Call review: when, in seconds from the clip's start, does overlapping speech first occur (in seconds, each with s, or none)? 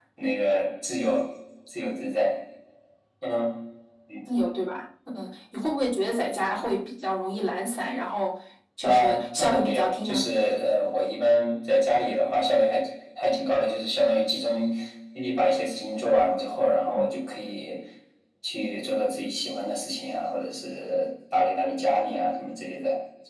8.8 s